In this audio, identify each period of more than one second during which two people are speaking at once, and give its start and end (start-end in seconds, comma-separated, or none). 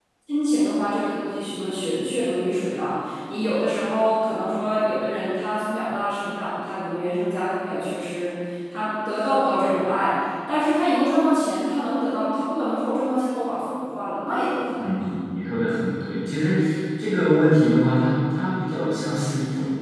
none